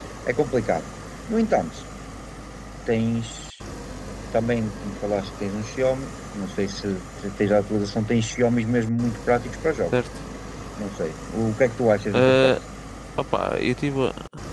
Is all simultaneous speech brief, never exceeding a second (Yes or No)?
Yes